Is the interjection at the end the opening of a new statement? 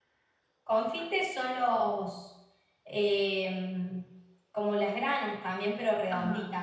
Yes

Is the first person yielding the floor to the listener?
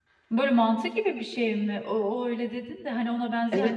Yes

